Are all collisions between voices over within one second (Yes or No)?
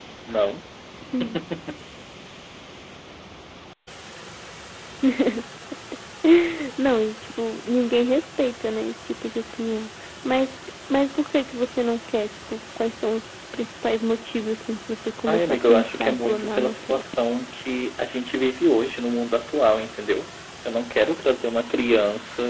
No